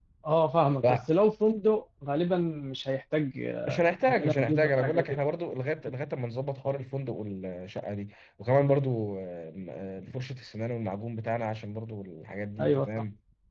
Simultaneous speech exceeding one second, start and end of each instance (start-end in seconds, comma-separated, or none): 3.7-5.2